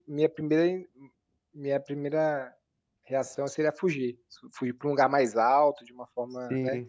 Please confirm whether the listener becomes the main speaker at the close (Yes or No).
No